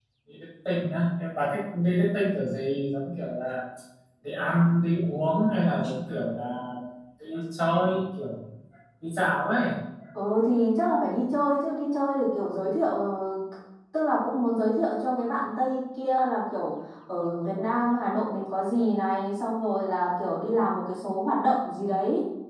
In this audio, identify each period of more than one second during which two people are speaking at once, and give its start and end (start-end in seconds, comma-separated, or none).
none